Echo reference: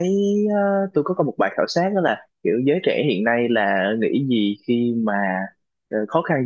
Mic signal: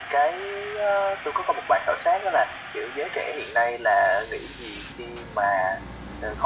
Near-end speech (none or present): none